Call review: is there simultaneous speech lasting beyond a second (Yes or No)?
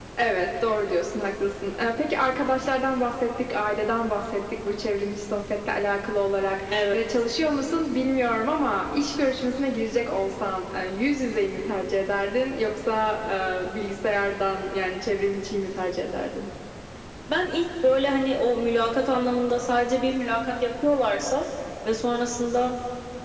No